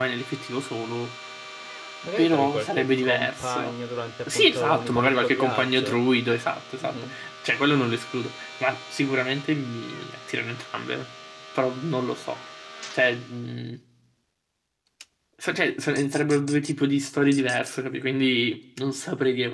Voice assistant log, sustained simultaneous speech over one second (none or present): present